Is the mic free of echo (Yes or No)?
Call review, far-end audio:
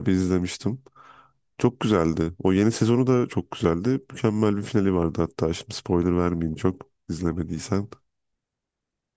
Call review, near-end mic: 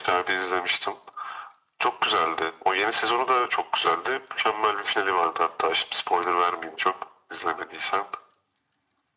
No